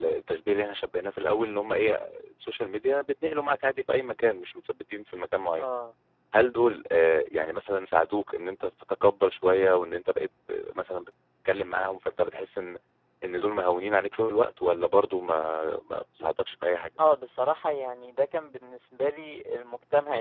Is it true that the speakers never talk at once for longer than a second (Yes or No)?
Yes